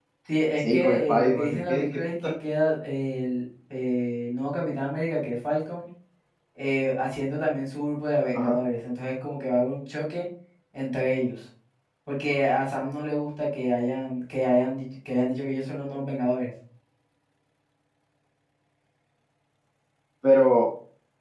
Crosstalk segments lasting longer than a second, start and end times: 0.6-2.3

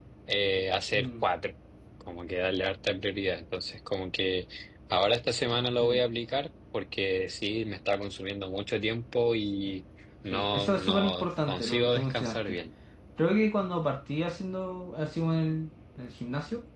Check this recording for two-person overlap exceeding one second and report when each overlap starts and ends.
10.3-12.6

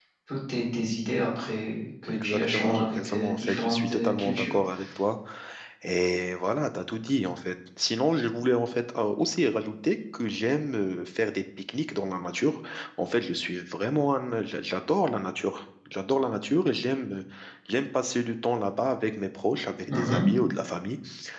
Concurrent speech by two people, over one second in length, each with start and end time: 2.1-4.6

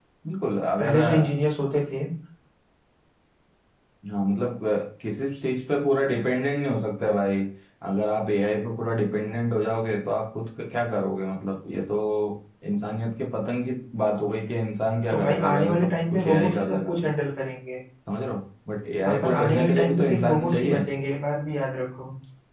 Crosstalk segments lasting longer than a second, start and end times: 15.1-17.1, 19.1-20.8

